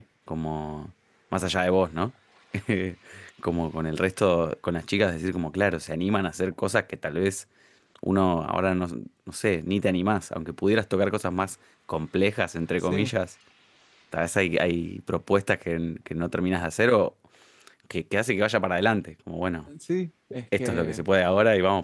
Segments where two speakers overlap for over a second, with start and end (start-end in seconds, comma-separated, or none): none